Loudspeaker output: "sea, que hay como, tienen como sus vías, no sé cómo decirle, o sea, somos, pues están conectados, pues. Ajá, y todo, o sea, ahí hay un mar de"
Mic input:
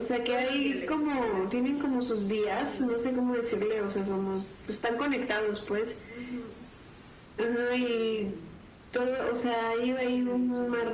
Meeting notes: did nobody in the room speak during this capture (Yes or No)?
No